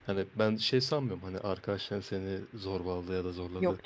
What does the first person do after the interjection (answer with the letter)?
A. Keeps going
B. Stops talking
A